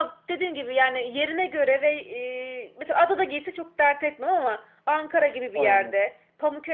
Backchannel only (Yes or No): Yes